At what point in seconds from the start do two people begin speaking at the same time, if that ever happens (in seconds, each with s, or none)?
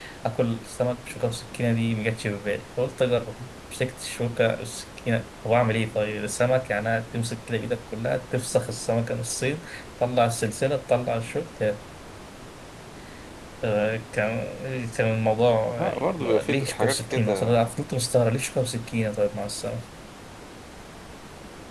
15.8 s